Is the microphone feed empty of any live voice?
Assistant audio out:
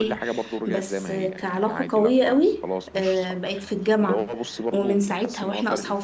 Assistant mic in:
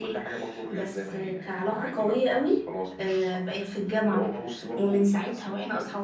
Yes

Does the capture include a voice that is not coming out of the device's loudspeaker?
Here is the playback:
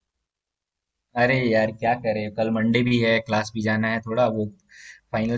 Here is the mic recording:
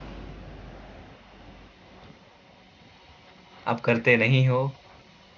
Yes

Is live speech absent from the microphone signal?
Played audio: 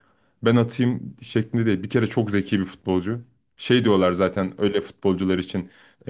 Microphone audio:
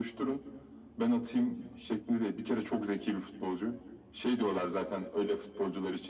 Yes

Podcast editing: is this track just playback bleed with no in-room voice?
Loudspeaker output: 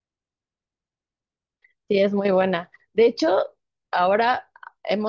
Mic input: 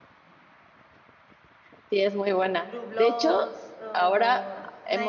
No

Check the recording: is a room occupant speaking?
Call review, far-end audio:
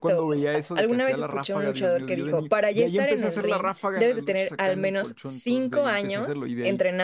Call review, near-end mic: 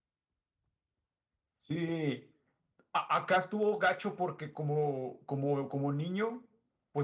Yes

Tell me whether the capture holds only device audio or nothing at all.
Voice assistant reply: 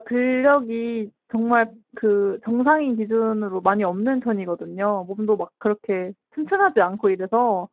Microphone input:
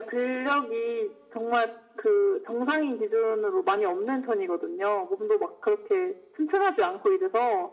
Yes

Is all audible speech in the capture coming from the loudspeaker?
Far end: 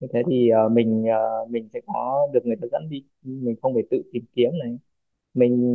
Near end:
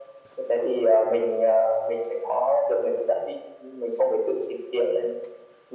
Yes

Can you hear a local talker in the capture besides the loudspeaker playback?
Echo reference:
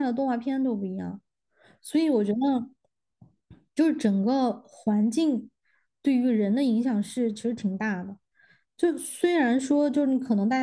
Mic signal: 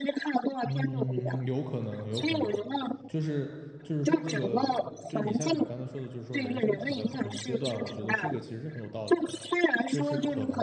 Yes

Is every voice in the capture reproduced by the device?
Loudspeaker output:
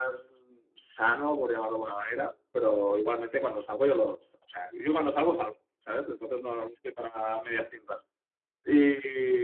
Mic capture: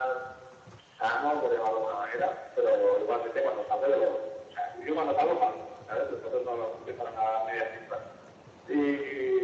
Yes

